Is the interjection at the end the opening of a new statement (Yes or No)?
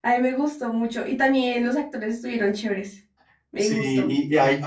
Yes